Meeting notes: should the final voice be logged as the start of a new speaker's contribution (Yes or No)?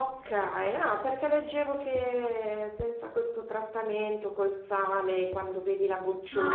Yes